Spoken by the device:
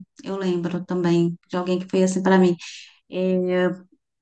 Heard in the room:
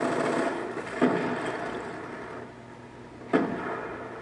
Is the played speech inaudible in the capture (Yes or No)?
Yes